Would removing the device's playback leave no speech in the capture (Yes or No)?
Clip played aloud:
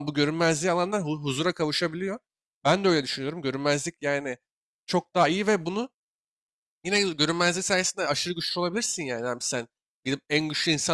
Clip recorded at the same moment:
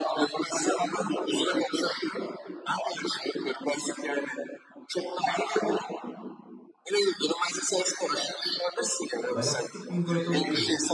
No